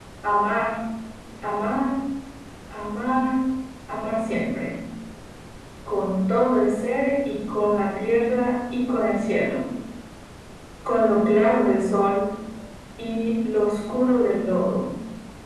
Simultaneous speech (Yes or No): No